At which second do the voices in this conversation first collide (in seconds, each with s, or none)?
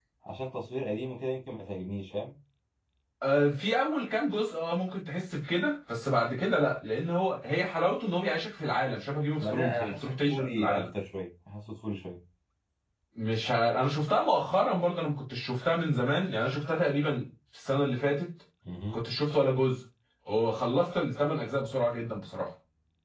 9.4 s